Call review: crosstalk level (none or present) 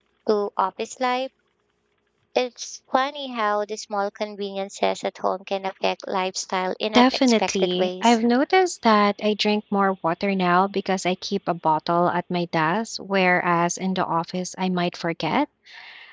present